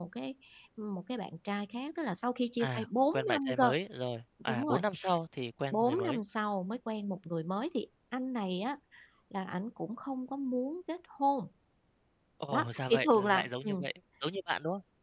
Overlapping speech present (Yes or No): Yes